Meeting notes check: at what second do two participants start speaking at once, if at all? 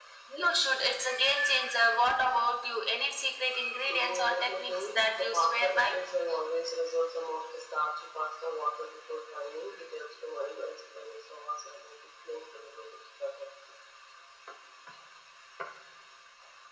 3.9 s

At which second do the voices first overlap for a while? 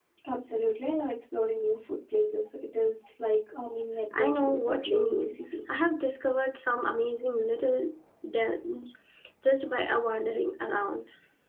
4.1 s

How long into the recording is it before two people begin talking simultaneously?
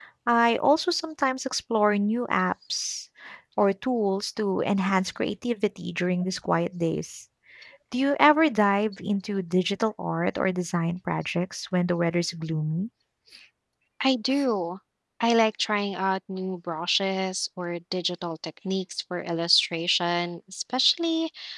none

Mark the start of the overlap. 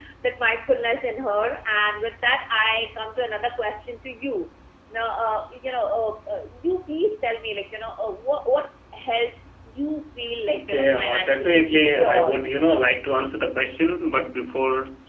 10.5 s

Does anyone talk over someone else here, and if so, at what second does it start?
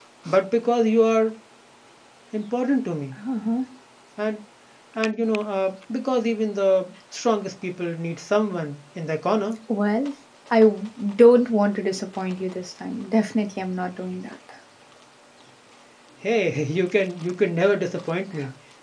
none

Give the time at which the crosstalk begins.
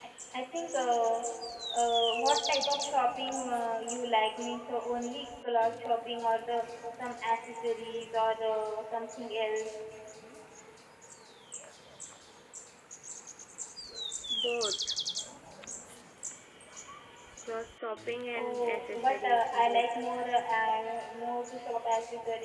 18.4 s

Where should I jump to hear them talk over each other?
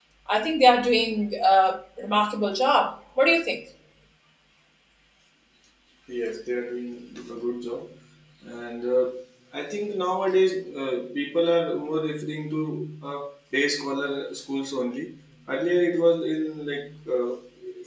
none

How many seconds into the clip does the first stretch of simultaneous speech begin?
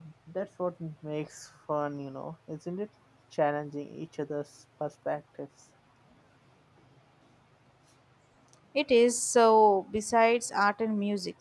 none

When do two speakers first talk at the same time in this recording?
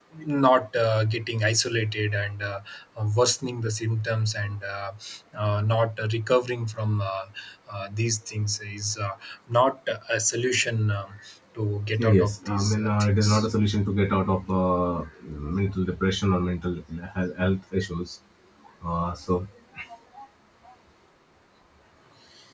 12.0 s

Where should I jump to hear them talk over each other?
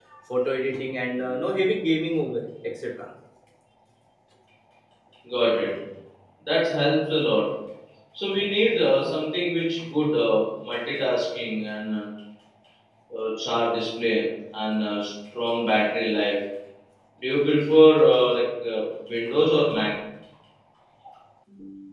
none

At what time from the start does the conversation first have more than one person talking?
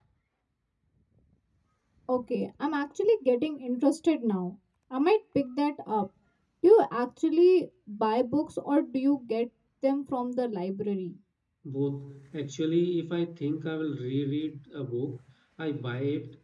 none

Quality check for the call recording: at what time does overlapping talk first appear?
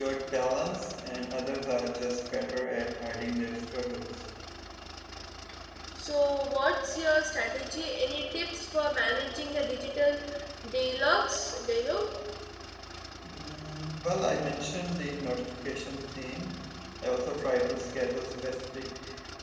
none

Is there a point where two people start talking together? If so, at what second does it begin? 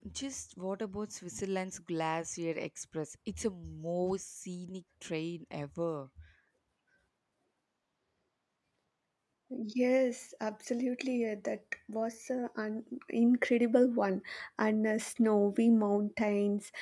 none

